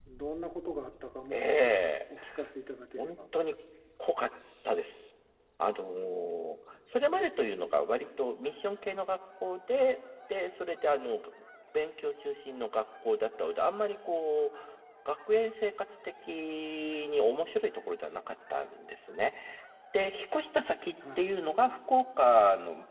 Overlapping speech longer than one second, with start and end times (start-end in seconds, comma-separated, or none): none